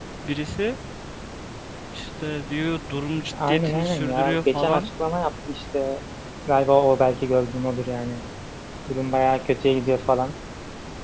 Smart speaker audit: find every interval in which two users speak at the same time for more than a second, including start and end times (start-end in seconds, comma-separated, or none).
3.5-4.9